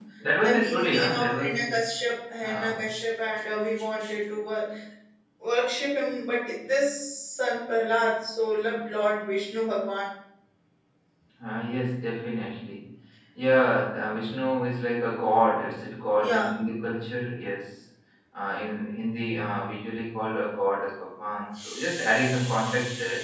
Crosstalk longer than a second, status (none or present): present